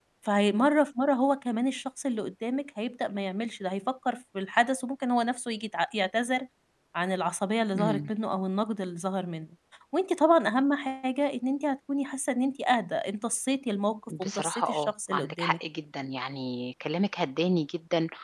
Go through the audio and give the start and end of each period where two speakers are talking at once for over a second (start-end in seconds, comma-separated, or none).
14.2-15.6